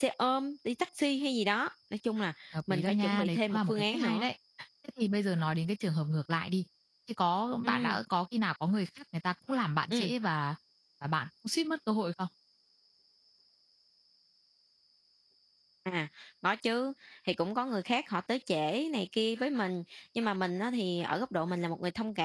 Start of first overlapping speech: 2.7 s

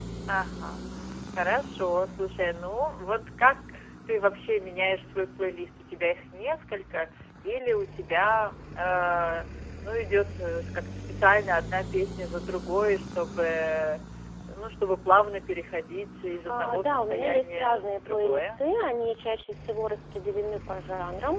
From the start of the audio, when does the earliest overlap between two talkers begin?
16.5 s

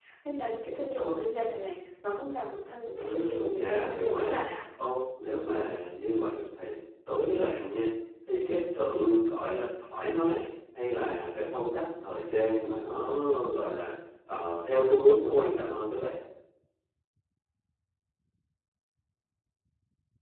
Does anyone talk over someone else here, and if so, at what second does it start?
2.9 s

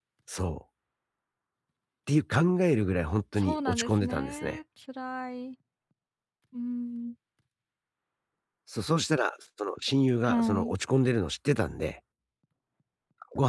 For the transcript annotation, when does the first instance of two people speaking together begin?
3.4 s

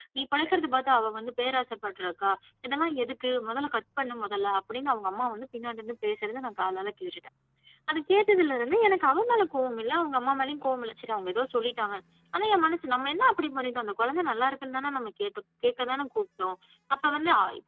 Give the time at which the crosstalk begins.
none

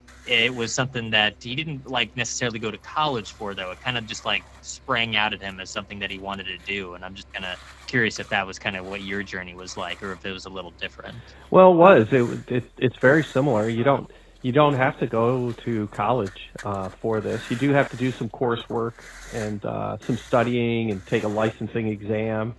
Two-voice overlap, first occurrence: none

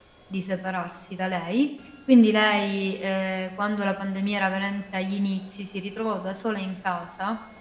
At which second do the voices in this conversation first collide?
none

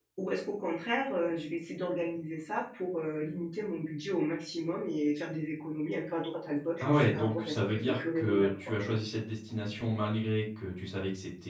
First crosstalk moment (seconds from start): 6.8 s

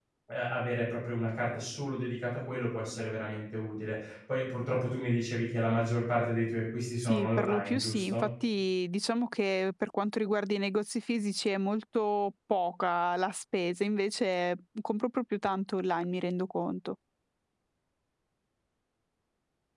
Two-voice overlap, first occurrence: 7.0 s

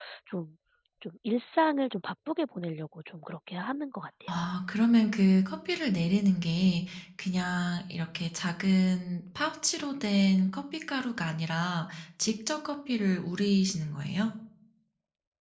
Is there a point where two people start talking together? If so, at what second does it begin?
none

